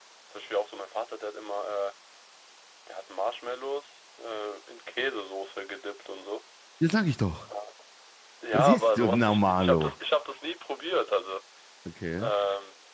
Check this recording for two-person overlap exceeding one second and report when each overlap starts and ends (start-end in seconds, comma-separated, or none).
8.5-9.9